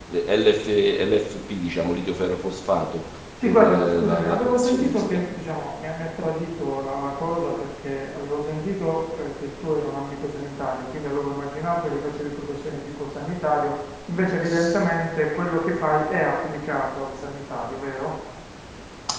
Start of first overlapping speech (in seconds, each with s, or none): 3.4 s